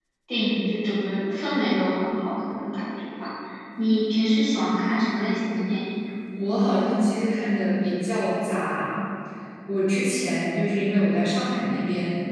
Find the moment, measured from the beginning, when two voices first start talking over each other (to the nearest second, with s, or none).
none